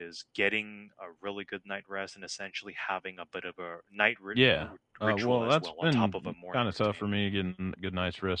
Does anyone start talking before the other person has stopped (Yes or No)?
Yes